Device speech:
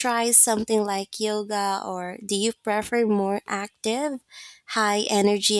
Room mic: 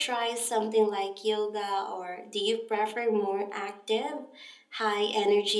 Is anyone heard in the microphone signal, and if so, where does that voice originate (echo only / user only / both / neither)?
echo only